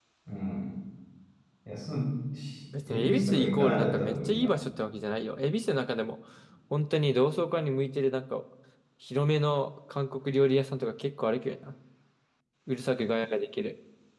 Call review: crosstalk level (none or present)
present